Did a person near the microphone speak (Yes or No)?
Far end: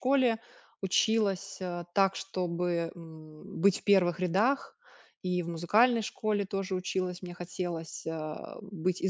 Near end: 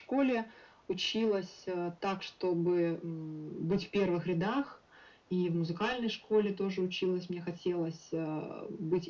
No